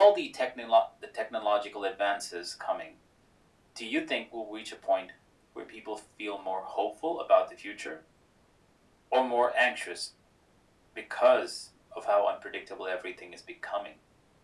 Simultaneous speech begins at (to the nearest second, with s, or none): none